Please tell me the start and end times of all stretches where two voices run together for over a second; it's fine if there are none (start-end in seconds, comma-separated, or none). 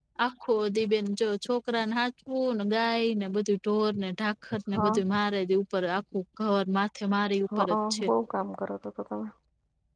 none